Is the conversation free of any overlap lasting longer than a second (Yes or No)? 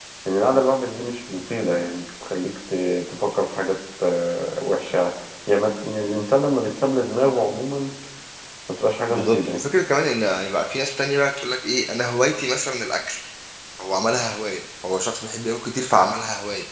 Yes